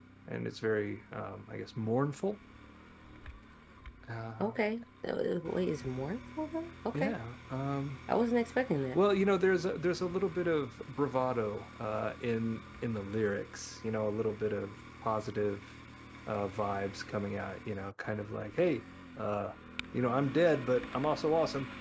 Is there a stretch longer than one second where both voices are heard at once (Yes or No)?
No